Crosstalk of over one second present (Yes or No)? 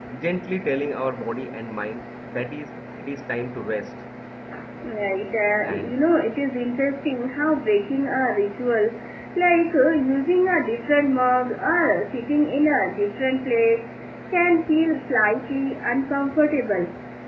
No